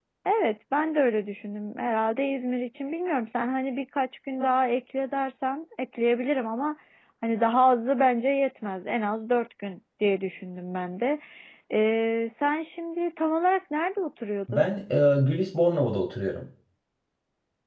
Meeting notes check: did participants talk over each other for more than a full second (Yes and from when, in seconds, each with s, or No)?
No